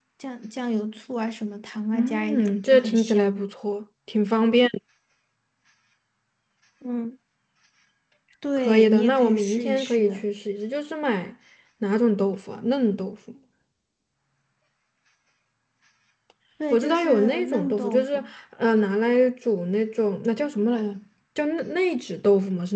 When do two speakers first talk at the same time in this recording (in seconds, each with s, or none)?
1.9 s